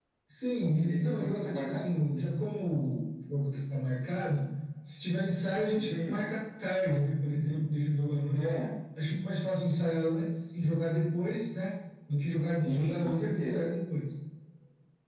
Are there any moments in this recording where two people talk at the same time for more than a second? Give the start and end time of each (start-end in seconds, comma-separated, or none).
0.7-1.9, 12.5-13.7